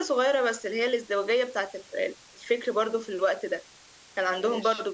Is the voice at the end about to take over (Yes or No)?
No